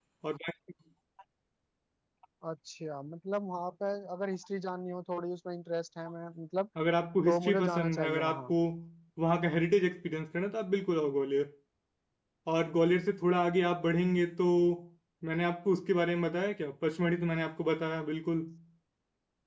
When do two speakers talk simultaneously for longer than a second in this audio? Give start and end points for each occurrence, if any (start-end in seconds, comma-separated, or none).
7.2-8.5